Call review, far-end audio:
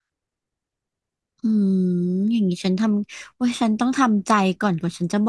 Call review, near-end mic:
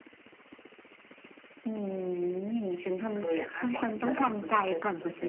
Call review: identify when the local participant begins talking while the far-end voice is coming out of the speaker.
3.1 s

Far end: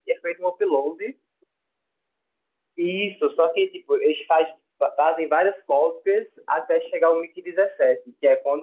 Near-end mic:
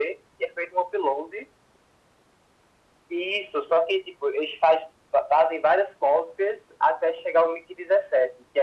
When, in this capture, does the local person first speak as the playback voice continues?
none

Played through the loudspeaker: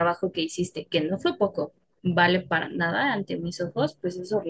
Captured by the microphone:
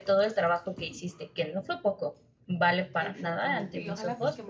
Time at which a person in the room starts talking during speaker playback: 3.0 s

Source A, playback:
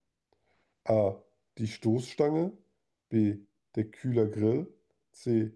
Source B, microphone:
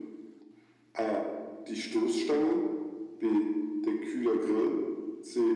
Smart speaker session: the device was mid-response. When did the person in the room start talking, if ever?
none

